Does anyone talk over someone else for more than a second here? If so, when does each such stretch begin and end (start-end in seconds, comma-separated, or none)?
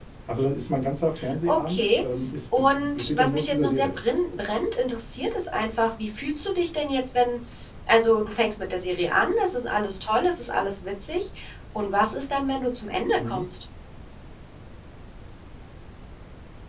2.6-4.0